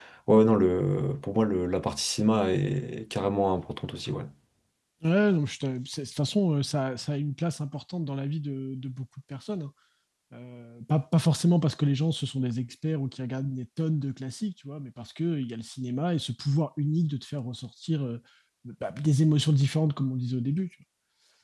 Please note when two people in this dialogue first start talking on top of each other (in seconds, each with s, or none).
none